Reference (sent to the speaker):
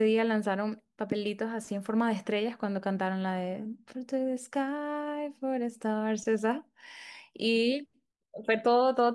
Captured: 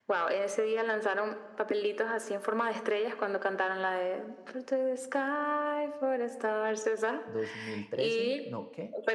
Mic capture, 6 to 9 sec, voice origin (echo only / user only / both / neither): both